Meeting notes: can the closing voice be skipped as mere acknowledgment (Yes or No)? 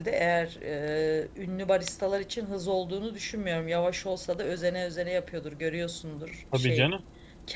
Yes